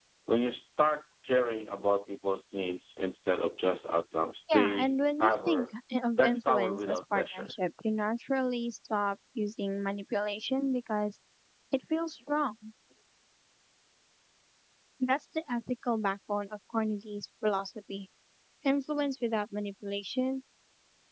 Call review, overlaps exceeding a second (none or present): present